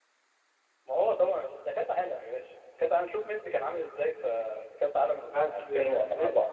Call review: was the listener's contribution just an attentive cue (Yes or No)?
No